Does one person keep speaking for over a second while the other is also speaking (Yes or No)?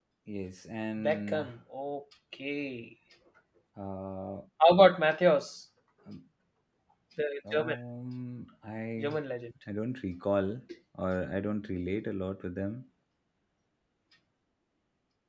No